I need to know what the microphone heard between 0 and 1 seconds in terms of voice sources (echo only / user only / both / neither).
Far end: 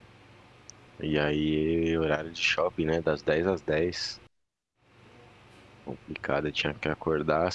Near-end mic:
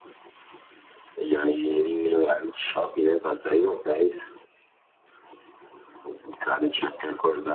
neither